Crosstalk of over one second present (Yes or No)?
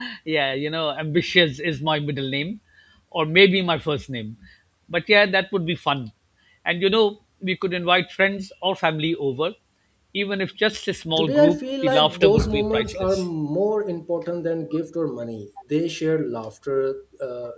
Yes